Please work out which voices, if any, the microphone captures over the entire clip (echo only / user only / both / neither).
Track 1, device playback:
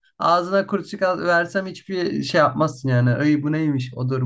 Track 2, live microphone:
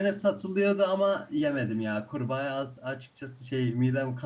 user only